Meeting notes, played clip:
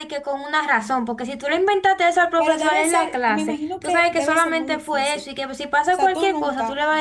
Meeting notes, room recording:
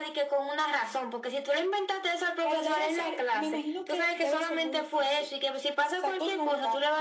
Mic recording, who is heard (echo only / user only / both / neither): echo only